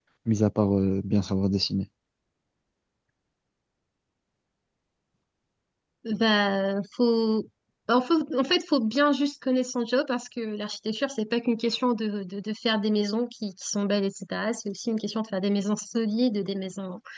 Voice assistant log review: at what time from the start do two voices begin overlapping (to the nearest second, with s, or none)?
none